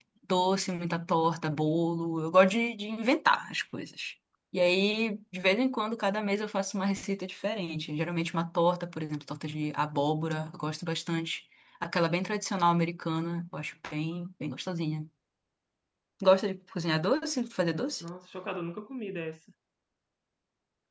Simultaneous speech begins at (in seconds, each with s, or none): none